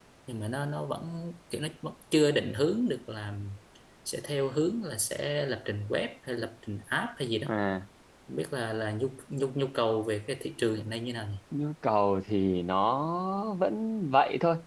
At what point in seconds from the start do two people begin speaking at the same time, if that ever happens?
none

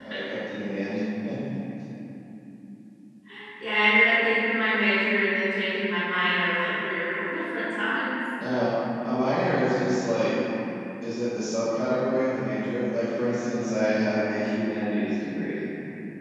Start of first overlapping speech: none

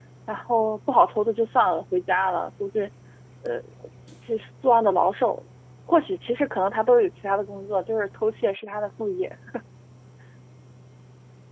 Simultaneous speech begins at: none

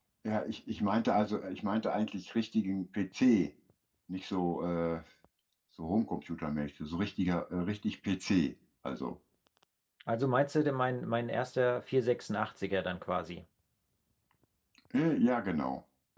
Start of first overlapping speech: none

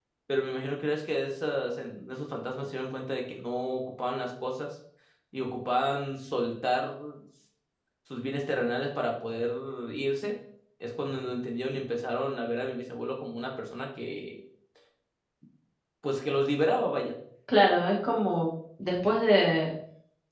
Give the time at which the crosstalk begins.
none

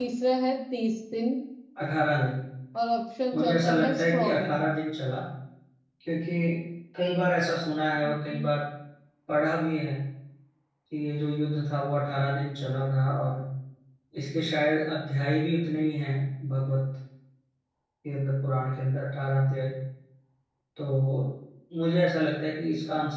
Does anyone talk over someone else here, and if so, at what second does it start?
3.3 s

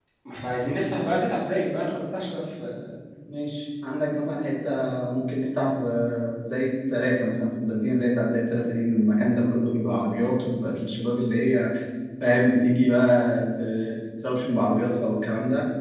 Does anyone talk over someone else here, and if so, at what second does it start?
none

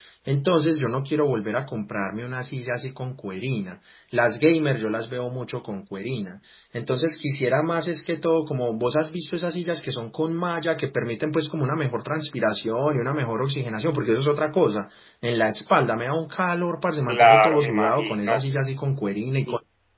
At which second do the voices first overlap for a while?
17.1 s

